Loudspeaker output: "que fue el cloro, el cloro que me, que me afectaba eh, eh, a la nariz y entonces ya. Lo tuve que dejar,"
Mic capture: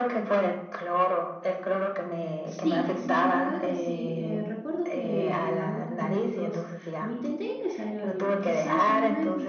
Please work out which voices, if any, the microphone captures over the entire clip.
both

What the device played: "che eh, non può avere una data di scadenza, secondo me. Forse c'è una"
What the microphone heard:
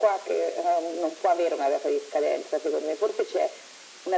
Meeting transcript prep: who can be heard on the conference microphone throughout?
echo only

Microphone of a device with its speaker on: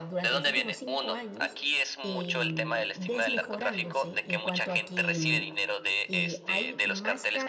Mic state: both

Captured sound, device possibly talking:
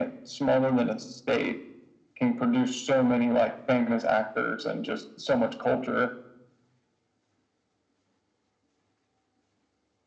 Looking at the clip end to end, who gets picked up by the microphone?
echo only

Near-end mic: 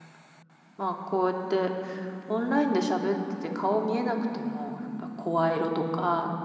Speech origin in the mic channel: user only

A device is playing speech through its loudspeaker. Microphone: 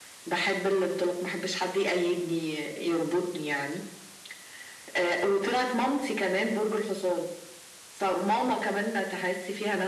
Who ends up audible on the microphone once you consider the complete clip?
echo only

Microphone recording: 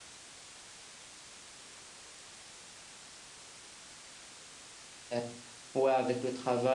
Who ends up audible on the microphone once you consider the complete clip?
user only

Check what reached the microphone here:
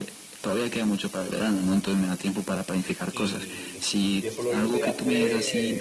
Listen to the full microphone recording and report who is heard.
both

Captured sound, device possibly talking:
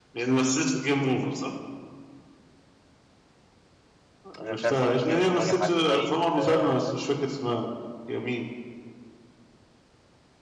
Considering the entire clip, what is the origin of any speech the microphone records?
both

